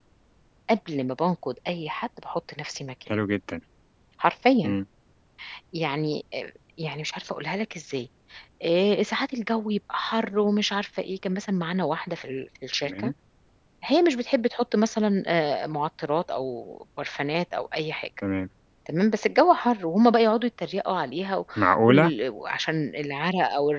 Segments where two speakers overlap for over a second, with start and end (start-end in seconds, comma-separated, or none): none